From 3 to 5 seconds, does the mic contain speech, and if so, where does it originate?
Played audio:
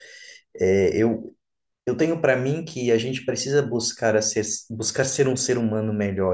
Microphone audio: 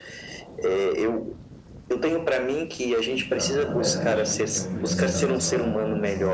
both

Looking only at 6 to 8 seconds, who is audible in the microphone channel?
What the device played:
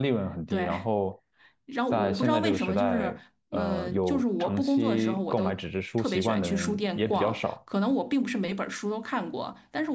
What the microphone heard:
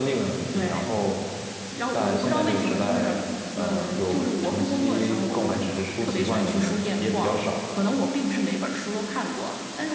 echo only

